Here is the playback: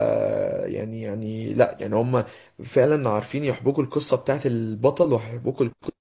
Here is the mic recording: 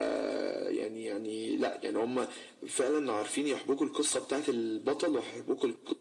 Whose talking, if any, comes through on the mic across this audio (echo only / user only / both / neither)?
echo only